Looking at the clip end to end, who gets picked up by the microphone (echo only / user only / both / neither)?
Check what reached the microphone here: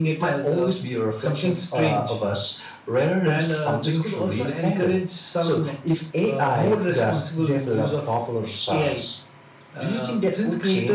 echo only